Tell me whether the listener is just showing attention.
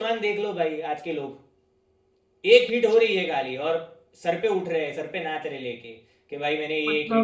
Yes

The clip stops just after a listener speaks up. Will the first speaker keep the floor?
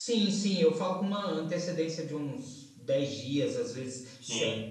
Yes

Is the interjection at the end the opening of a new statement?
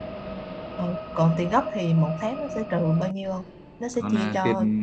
Yes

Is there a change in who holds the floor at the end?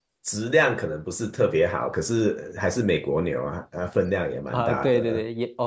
Yes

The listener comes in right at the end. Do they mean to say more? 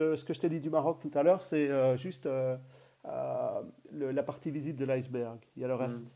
Yes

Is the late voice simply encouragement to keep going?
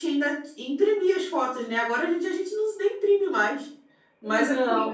Yes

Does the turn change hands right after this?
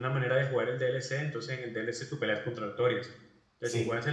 No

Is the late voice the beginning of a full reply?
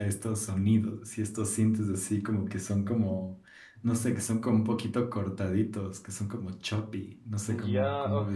Yes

